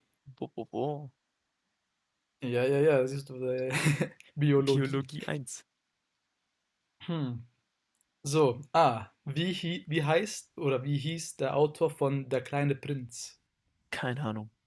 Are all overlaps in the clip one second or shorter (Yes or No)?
Yes